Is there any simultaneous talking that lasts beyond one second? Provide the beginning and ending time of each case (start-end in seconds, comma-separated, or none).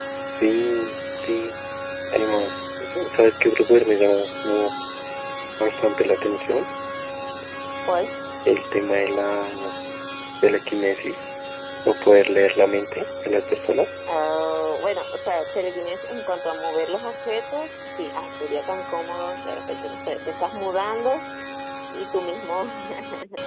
none